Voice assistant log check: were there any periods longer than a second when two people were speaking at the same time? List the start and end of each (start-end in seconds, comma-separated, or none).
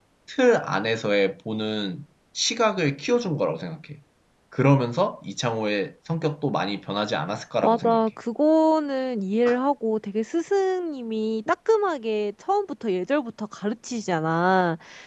none